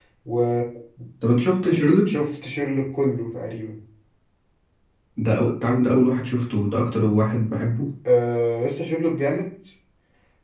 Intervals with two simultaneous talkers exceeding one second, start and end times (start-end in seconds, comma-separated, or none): none